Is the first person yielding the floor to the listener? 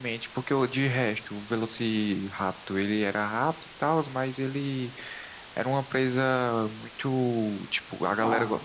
No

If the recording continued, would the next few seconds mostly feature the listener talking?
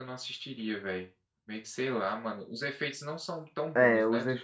Yes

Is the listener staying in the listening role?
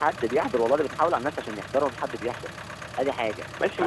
No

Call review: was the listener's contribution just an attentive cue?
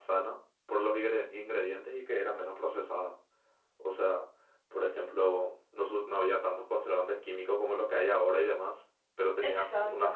Yes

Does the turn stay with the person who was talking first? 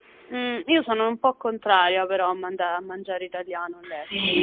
No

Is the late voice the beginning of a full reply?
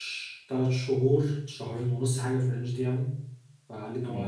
No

